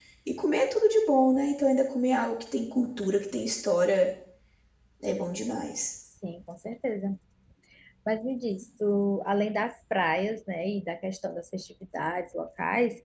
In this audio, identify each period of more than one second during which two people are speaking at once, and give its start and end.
none

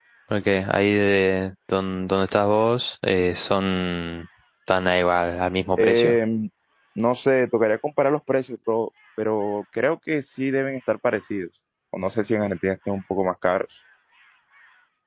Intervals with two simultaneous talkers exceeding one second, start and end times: none

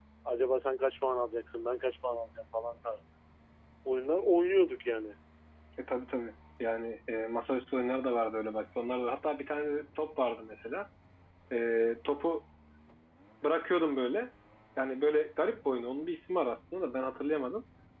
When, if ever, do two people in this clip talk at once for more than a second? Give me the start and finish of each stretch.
none

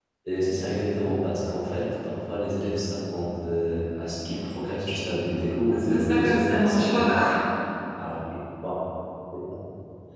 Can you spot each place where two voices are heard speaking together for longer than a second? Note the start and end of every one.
5.7-7.1

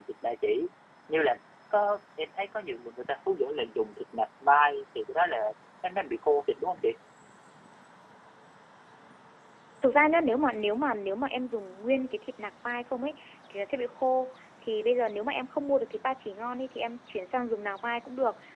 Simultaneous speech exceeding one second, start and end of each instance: none

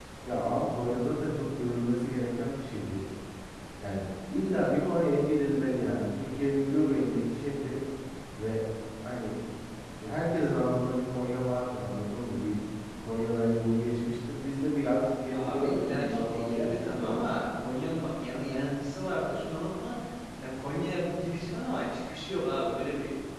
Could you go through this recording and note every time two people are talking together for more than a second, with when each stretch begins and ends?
15.3-17.3

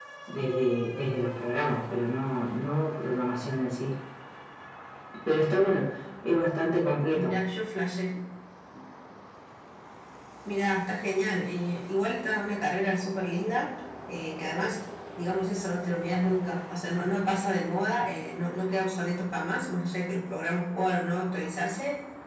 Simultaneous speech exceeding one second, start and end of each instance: none

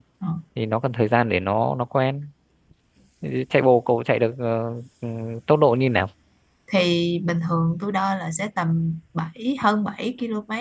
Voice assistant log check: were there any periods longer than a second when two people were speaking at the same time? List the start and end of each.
none

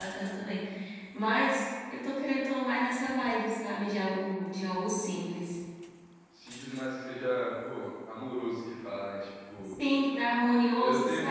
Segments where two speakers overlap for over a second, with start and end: none

